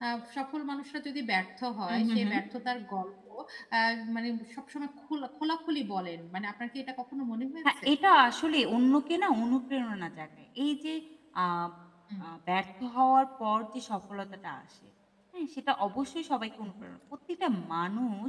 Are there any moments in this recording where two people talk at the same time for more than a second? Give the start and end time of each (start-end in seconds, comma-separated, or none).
none